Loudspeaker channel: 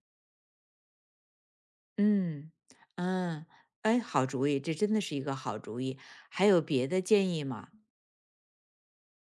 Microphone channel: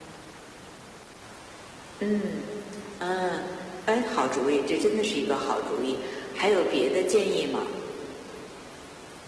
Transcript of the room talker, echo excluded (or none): none